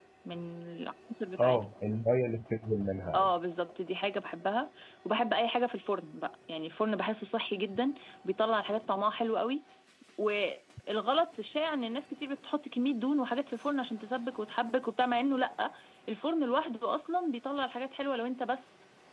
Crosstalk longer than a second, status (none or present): none